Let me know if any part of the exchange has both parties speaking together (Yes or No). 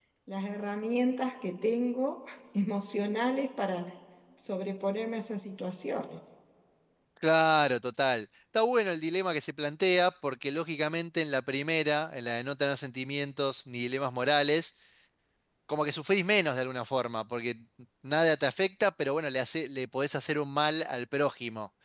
No